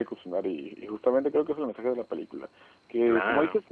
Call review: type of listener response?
listening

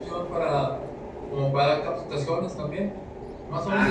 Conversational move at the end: listening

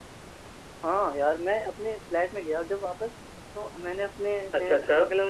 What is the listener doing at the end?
listening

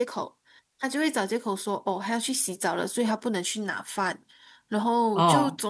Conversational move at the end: listening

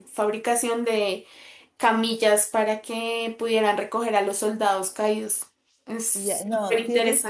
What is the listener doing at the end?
taking over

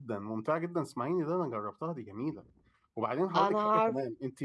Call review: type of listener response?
listening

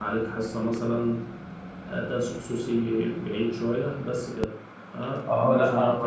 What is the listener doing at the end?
taking over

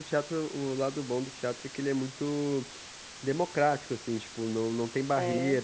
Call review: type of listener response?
listening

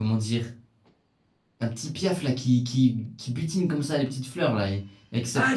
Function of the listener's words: taking over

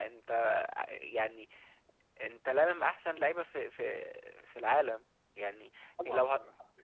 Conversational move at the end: listening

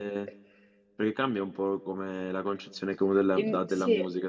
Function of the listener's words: listening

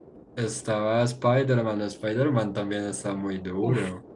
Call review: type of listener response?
taking over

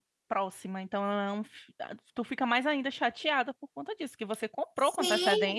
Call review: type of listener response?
taking over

